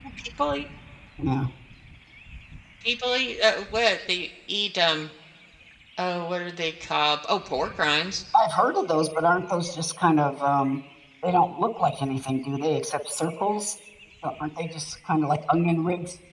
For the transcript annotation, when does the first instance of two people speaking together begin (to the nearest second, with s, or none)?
none